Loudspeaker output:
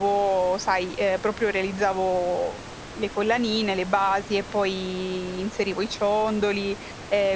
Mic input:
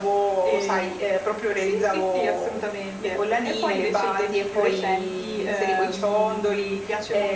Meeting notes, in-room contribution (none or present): present